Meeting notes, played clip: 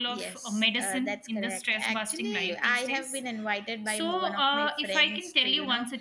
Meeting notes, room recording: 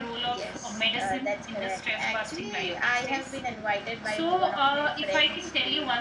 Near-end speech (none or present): none